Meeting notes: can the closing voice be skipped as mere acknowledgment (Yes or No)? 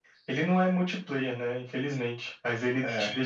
Yes